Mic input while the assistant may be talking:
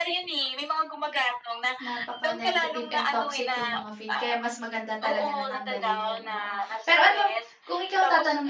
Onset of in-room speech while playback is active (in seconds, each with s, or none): 1.8 s